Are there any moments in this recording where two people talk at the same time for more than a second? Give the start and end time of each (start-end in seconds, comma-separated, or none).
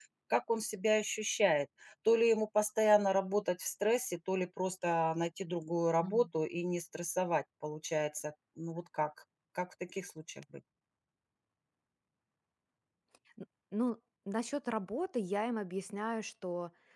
none